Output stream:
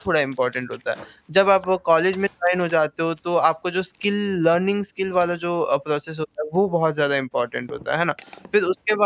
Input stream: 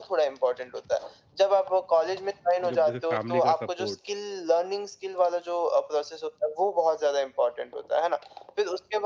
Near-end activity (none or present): present